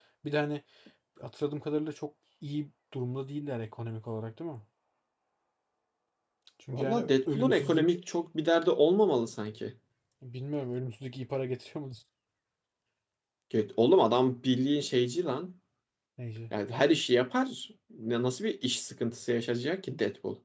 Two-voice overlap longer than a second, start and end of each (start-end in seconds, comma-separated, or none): 6.7-7.9